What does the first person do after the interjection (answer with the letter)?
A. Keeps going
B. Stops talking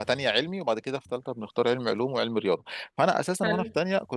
A